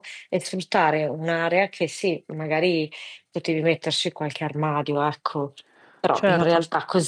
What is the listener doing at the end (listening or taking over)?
listening